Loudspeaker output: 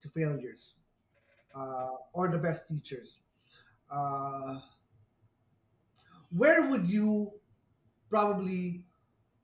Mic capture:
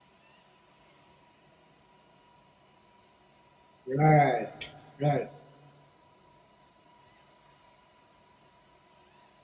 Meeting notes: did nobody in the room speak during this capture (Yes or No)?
No